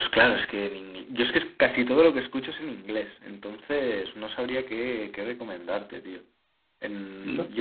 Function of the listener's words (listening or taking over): taking over